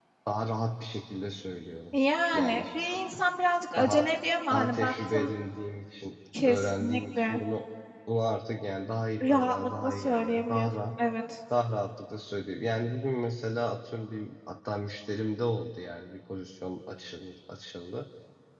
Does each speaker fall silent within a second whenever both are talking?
No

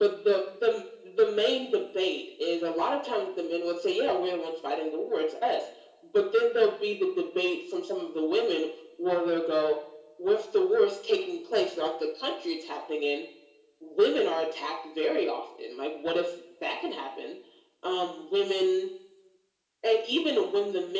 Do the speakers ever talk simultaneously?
No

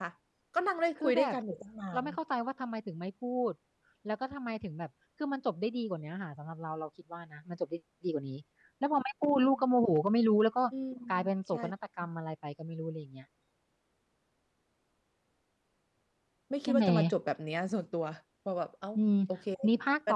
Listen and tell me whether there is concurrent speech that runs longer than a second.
No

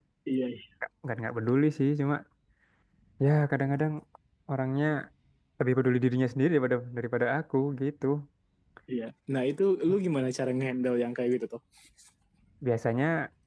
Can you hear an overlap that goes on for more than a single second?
No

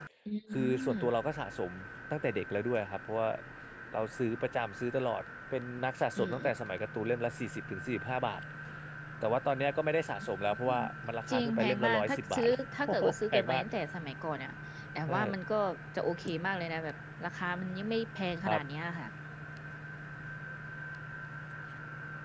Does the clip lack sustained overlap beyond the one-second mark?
No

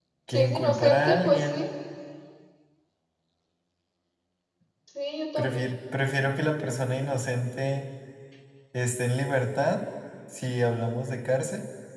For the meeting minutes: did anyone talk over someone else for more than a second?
Yes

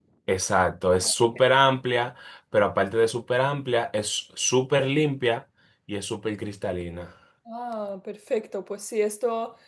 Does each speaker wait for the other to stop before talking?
Yes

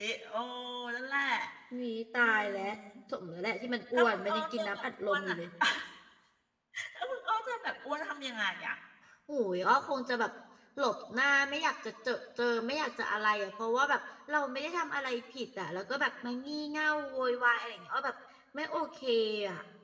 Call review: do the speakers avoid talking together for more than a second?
No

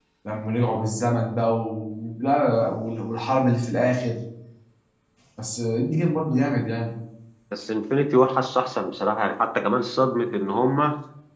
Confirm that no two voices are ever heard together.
Yes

